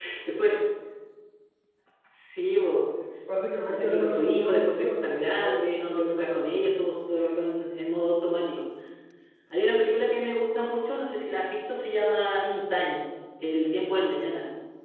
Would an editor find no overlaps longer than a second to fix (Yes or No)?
No